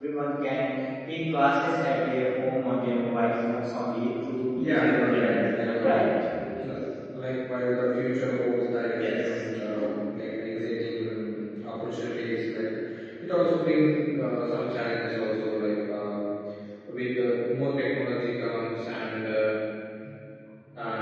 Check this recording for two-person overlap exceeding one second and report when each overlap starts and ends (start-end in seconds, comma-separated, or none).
4.6-6.0